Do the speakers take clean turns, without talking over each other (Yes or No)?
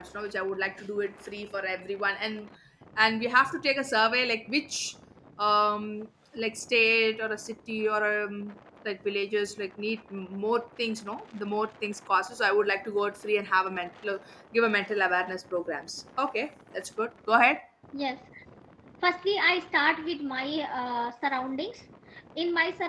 Yes